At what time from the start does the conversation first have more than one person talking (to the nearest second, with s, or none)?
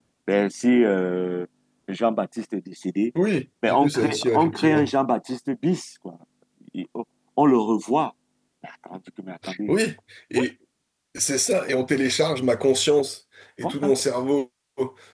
4 s